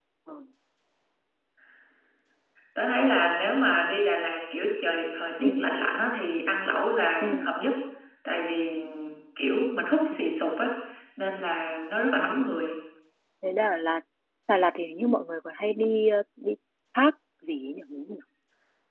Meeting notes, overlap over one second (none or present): none